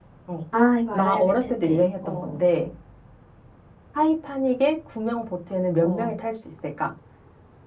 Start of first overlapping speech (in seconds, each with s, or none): 0.9 s